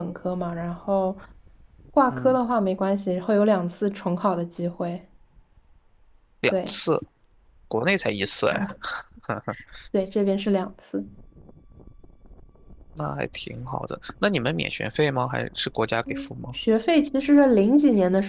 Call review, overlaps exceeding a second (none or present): none